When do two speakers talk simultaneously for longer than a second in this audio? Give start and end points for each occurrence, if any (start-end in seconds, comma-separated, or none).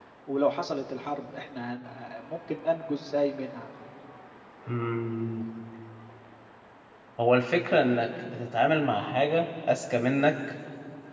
none